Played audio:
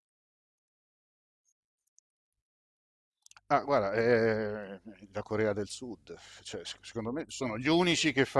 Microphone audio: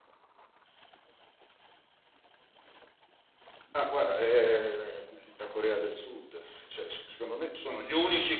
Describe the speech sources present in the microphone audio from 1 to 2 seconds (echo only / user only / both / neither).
neither